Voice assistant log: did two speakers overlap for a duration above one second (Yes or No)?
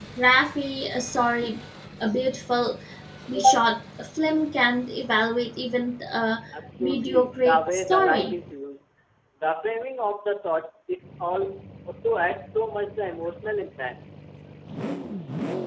Yes